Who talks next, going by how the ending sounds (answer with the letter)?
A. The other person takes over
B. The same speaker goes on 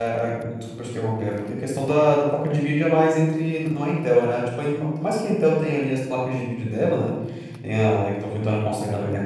B